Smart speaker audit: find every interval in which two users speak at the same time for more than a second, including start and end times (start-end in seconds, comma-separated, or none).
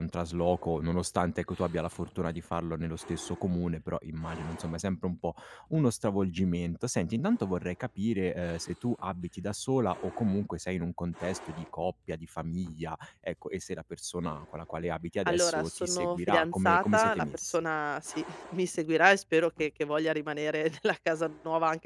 15.2-17.6